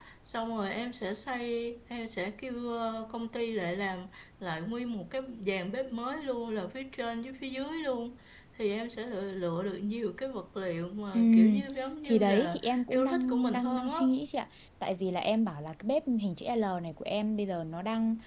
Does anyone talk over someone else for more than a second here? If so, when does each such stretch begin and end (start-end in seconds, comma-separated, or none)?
12.0-14.0